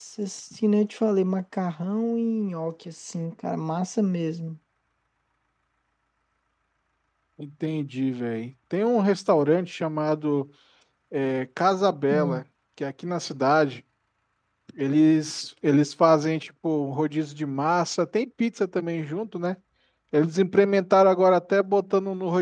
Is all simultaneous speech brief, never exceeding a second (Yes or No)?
Yes